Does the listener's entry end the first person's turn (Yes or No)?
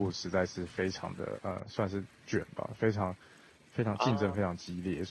No